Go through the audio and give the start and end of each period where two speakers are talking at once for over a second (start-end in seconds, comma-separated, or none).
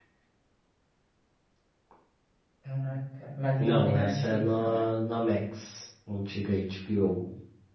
3.6-5.0